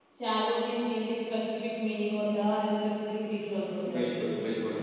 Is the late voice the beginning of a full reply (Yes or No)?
Yes